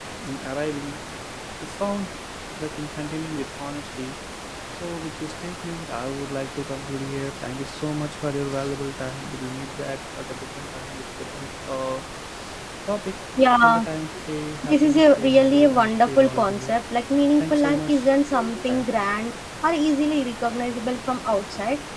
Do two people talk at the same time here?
Yes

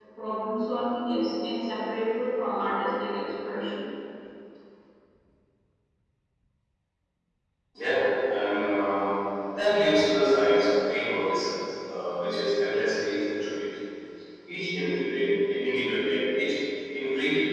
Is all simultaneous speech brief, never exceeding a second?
Yes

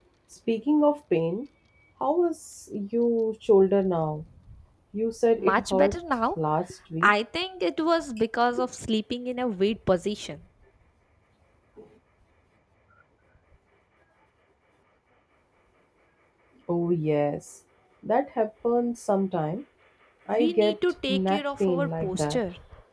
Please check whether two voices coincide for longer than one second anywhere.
Yes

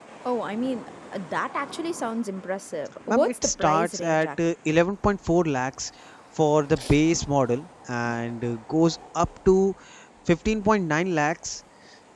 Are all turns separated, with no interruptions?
No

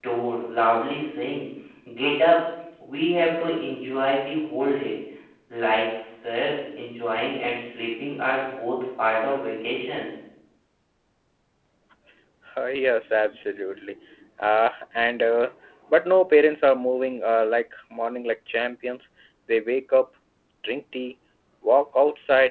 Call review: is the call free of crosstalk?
Yes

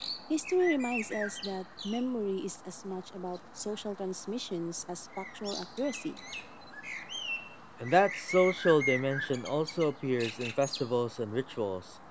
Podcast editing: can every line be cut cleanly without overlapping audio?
Yes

